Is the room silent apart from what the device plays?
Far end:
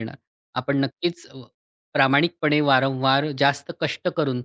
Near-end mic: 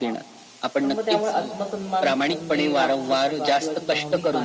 No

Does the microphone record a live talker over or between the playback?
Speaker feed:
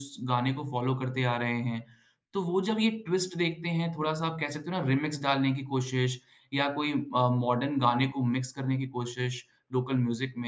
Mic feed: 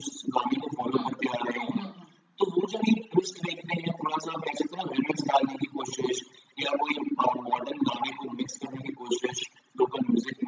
Yes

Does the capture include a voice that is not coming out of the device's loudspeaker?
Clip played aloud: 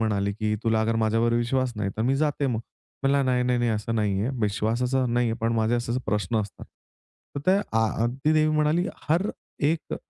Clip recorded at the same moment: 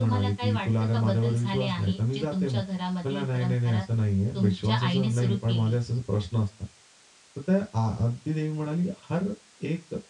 Yes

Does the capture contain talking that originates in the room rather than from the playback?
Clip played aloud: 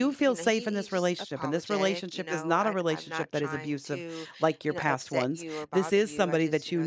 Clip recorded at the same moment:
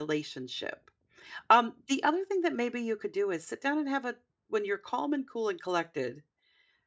Yes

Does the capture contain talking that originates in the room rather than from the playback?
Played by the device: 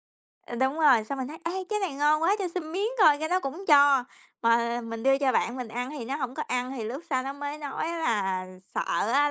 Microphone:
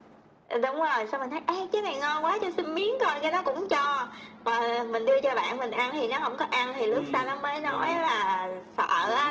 Yes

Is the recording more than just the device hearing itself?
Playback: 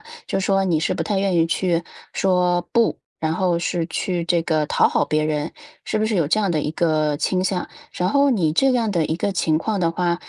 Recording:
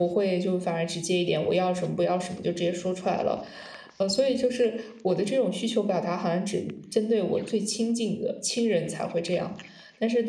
Yes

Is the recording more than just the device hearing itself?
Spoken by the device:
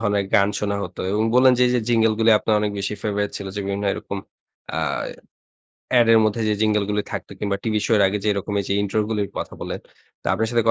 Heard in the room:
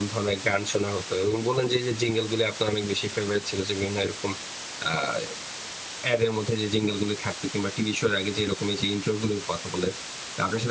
No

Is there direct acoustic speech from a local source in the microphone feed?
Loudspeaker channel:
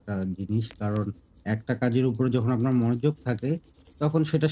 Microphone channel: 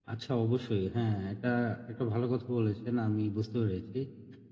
Yes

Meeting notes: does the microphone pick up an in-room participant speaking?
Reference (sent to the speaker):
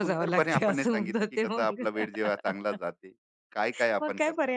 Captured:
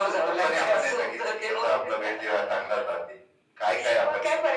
No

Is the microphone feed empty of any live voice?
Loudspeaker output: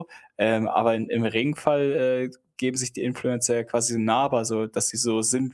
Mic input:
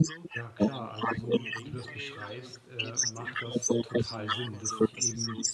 No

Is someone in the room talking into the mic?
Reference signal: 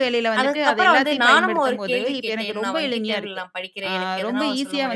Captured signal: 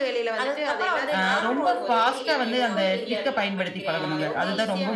Yes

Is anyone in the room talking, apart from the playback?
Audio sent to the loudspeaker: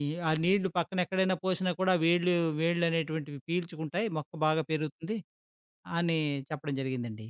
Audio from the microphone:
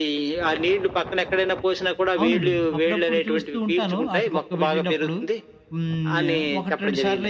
Yes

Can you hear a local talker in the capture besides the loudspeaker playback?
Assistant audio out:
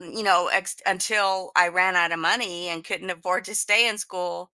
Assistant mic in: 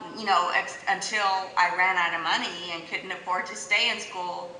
No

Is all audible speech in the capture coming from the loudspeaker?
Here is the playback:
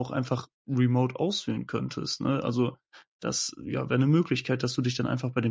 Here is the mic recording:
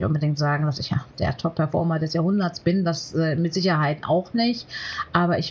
No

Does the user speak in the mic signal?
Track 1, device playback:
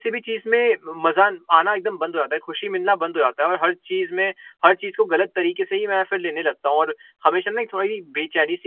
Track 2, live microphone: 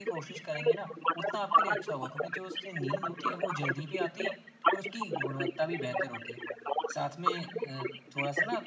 Yes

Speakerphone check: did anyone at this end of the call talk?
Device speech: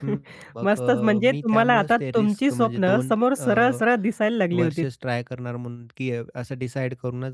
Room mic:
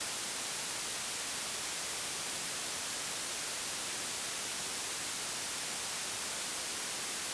No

